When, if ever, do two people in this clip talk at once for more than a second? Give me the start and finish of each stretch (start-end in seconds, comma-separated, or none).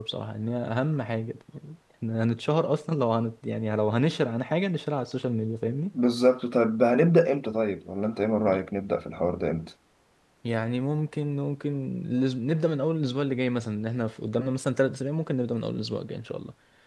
none